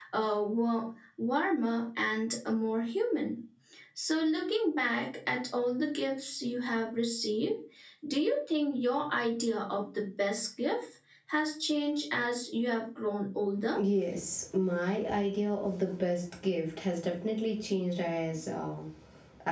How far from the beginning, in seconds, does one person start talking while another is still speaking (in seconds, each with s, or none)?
none